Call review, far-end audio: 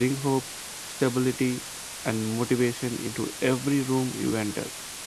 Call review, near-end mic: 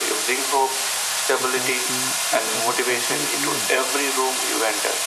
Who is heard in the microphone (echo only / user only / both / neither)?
both